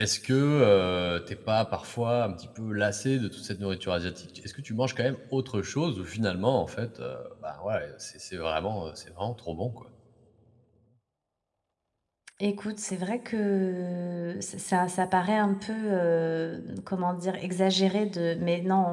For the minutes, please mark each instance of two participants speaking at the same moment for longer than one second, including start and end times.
none

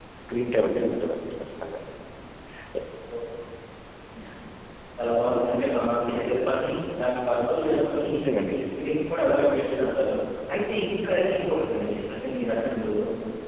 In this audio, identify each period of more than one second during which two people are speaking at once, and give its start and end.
none

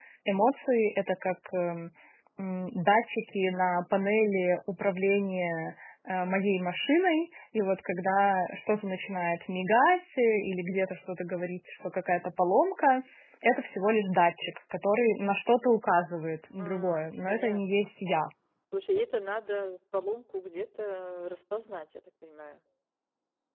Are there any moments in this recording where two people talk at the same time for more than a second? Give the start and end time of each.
16.6-17.9

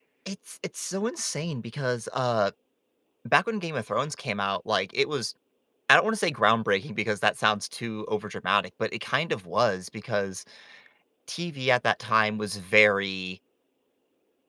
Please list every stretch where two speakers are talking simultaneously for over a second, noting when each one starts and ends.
none

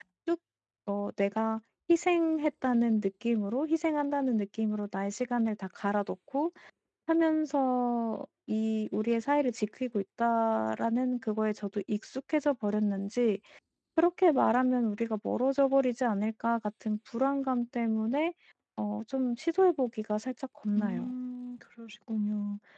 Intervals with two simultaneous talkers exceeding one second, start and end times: none

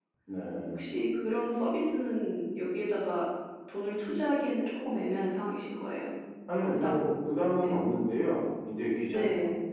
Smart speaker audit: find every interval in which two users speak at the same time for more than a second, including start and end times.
none

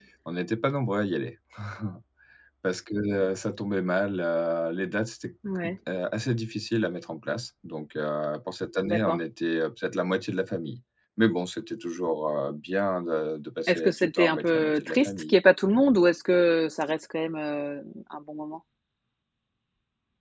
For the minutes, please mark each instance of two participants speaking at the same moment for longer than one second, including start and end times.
13.7-15.4

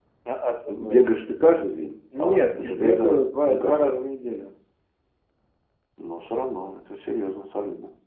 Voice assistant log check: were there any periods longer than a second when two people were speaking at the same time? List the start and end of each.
2.2-3.9

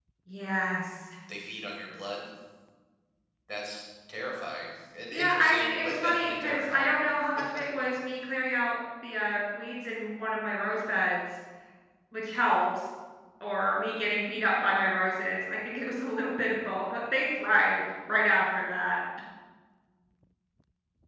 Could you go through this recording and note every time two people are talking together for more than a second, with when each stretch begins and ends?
5.1-6.9

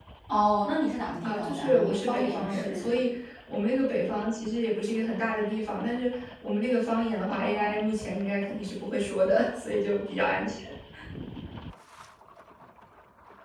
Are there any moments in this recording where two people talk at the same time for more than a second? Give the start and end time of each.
1.2-3.1

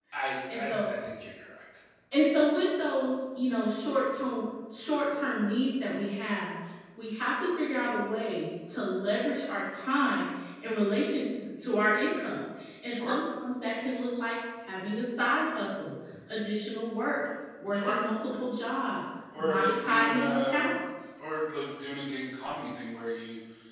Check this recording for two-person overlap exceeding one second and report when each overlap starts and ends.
19.4-20.6

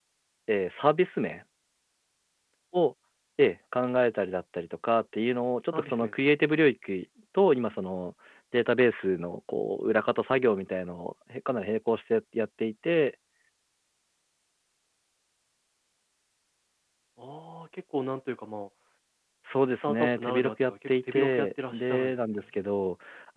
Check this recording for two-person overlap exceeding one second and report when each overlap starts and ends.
19.8-22.4

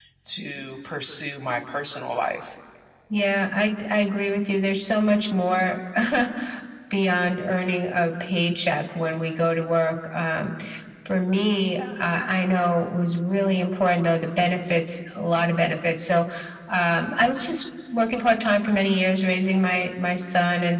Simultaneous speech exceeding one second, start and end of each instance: none

